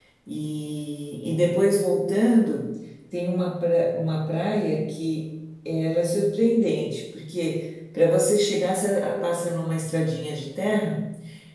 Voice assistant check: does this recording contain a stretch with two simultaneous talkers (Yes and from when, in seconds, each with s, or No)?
No